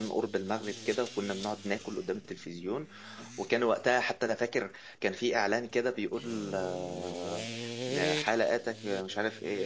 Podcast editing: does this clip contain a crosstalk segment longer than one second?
No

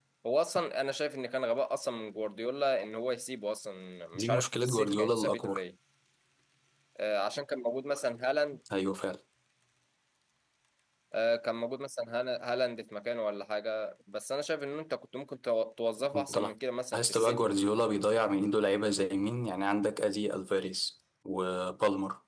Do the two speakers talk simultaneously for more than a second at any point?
Yes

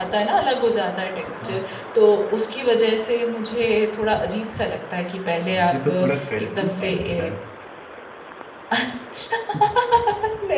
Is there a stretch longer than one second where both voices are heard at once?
Yes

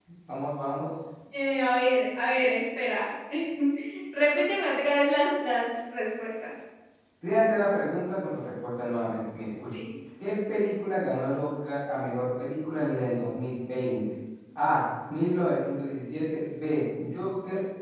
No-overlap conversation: Yes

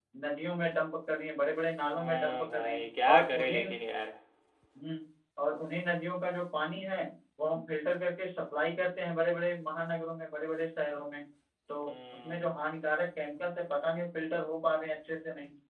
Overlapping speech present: Yes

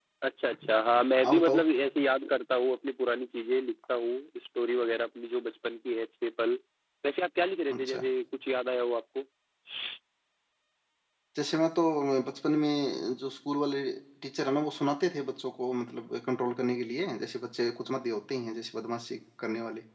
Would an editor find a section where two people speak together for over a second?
No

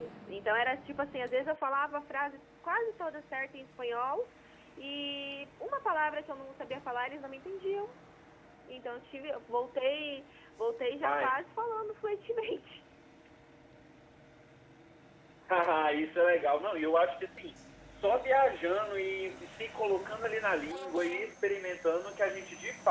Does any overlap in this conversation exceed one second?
No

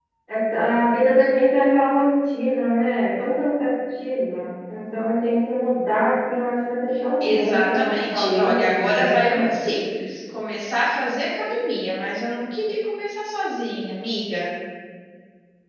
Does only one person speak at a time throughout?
No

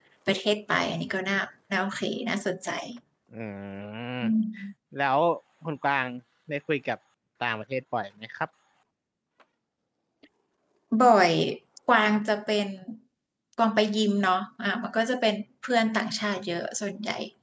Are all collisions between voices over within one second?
Yes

